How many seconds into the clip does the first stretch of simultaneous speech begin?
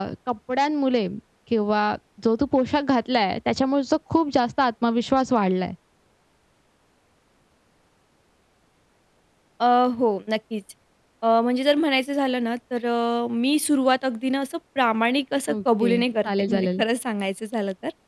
15 s

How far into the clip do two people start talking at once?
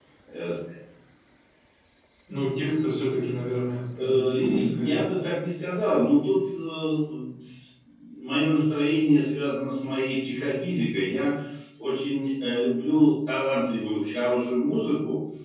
4 s

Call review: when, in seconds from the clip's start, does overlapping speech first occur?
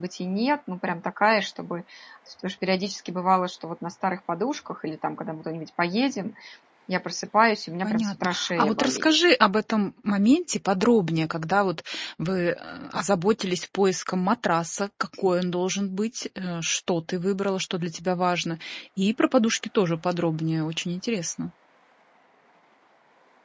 8 s

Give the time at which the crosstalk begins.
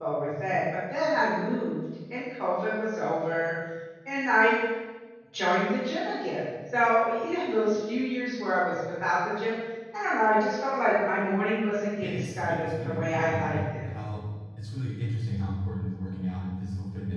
12 s

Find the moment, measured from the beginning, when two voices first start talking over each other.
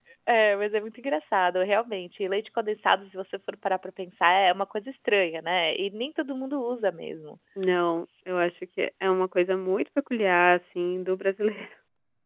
none

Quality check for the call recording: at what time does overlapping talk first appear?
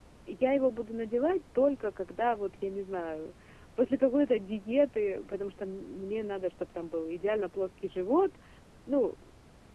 none

